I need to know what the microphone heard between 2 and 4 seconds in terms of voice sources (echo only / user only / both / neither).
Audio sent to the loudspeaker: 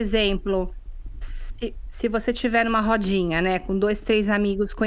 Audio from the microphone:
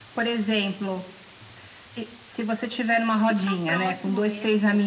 both